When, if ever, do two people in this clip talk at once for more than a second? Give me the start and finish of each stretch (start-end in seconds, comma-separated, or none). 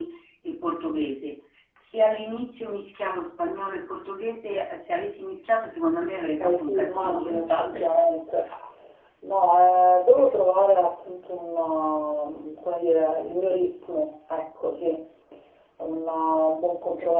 6.4-7.9